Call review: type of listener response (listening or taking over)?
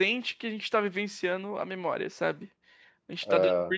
listening